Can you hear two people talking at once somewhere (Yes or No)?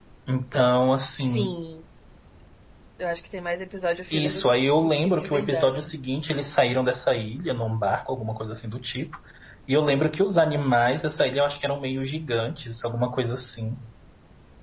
Yes